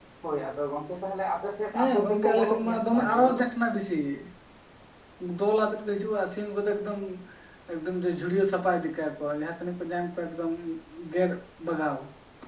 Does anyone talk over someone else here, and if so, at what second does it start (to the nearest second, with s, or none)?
2 s